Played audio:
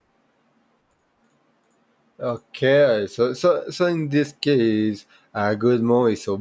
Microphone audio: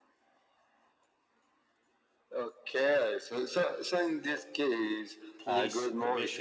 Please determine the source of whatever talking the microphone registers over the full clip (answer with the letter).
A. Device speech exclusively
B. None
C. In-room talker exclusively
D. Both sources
D